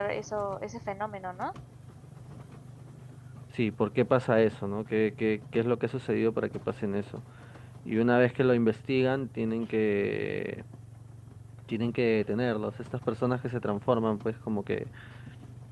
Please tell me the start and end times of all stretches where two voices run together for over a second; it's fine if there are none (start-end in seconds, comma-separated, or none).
none